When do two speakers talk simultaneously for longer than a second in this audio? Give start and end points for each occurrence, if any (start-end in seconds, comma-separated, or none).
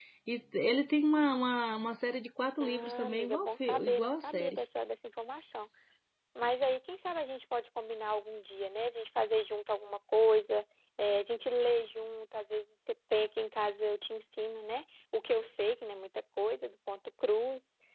2.6-4.6